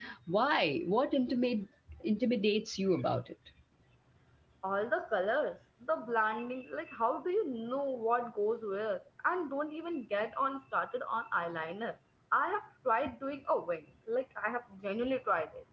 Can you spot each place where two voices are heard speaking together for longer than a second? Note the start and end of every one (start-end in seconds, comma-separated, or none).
none